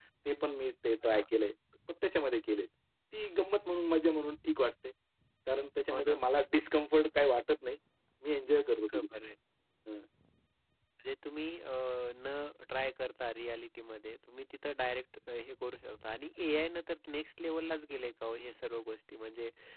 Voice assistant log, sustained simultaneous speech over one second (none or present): none